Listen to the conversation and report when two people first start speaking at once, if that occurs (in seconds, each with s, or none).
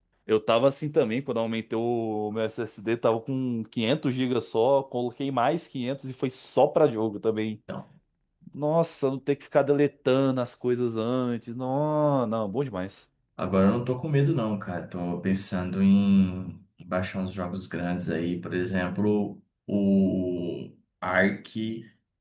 none